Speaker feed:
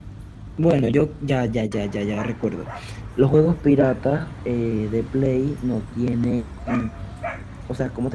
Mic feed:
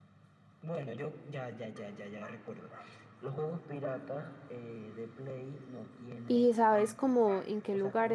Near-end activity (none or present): present